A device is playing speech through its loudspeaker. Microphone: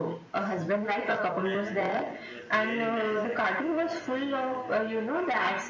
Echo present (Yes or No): Yes